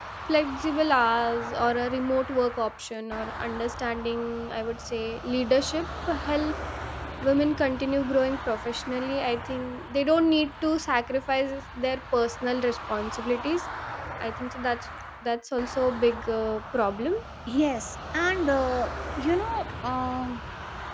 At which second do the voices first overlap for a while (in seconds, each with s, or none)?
none